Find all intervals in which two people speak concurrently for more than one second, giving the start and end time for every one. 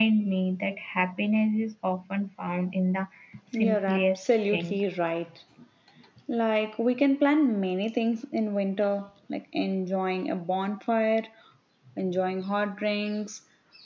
3.6-4.8

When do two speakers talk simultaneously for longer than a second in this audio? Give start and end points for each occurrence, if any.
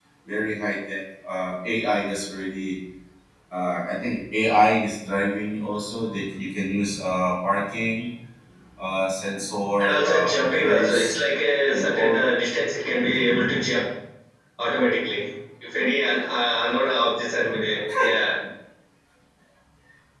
9.8-11.2

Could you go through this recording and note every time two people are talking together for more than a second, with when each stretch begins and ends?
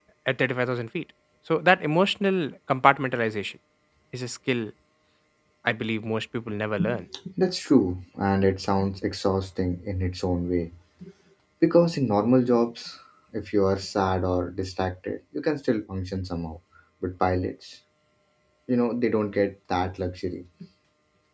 none

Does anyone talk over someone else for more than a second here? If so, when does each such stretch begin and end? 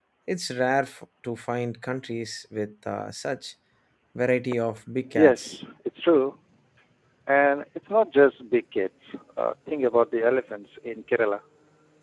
none

